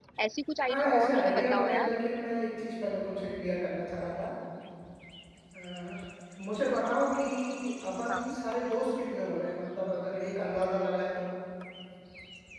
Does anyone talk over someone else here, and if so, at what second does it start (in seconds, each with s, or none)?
0.7 s